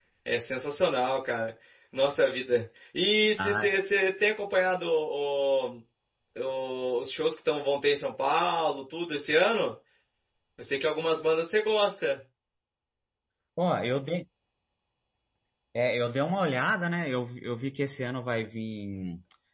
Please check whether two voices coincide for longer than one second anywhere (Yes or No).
No